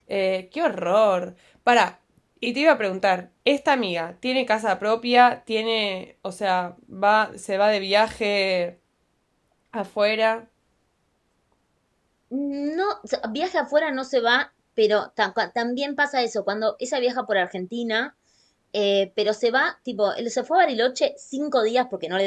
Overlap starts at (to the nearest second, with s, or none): none